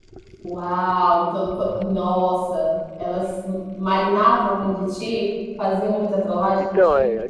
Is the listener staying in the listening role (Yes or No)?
No